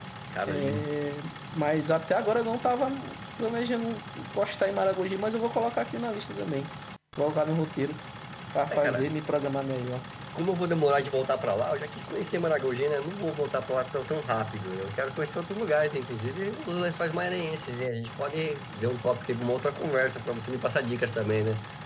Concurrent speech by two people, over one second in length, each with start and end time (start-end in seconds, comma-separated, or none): none